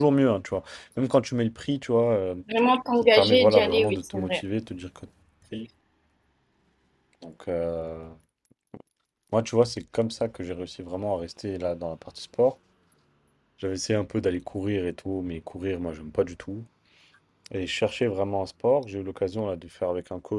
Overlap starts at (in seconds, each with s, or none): 3.1 s